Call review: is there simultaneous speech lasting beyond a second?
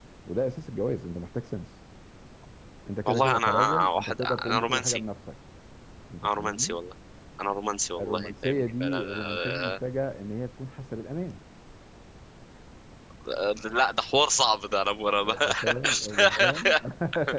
Yes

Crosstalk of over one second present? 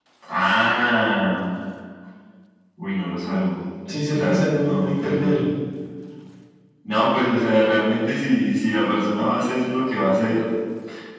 Yes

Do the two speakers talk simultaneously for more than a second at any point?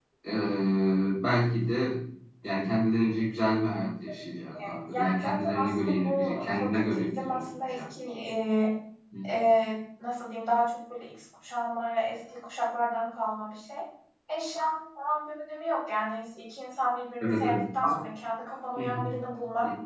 Yes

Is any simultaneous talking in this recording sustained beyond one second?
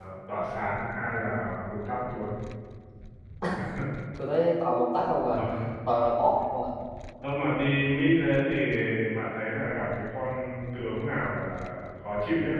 No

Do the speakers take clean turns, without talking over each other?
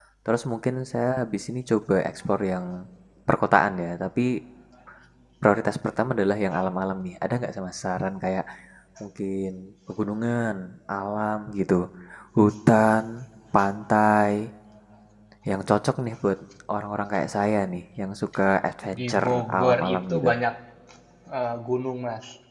No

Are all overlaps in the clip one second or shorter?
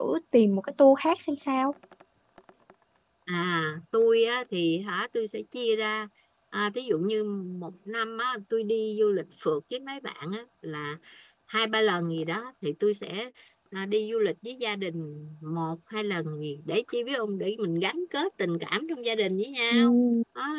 Yes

